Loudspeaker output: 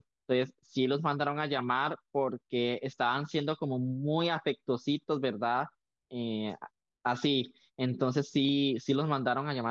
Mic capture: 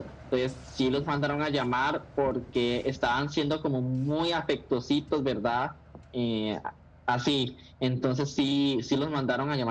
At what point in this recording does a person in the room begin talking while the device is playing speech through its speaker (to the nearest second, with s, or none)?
none